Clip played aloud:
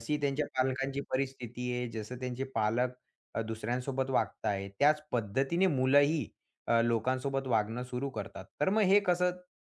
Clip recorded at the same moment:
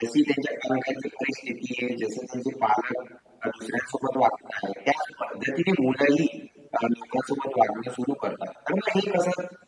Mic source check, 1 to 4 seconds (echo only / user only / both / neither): echo only